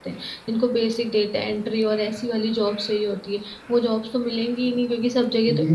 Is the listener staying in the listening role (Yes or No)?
No